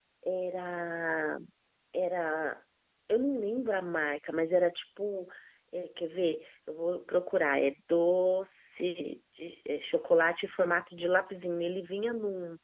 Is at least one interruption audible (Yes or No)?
No